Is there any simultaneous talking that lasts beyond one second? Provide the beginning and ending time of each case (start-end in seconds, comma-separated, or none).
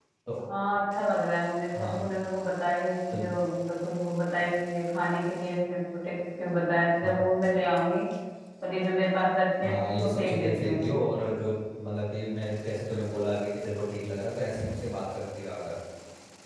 9.6-10.9